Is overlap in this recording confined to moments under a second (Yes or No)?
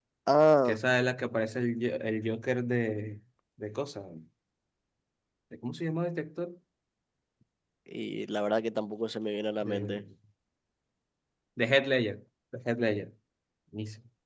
Yes